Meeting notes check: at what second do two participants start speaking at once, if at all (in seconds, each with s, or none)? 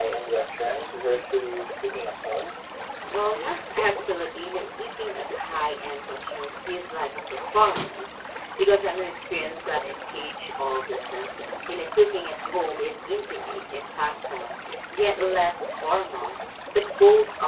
none